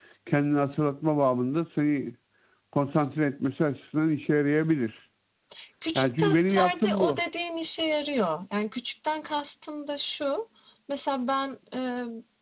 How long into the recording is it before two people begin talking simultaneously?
6.0 s

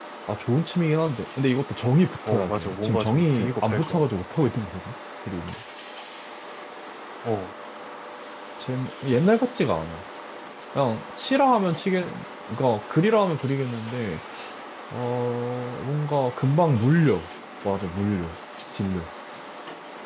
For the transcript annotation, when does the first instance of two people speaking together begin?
2.3 s

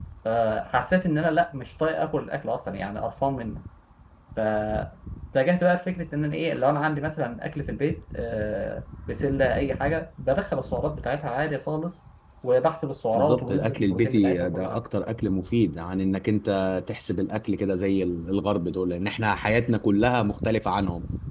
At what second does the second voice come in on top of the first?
13.1 s

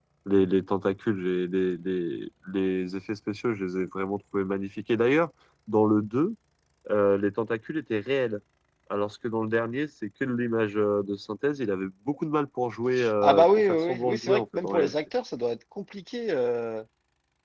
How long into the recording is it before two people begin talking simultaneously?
13.2 s

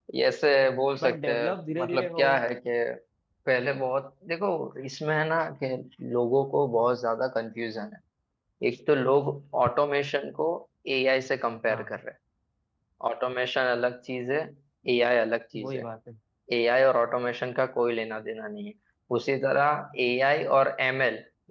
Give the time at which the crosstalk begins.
1.0 s

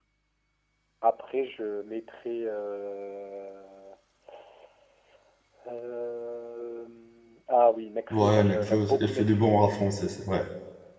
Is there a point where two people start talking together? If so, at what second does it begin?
8.1 s

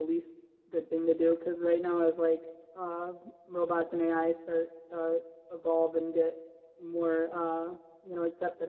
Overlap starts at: none

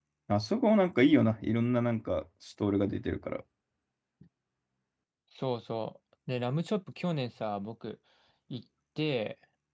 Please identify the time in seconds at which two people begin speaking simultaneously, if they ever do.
none

